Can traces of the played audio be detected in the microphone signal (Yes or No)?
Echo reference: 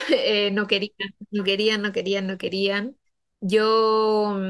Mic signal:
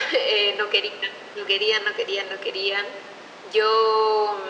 Yes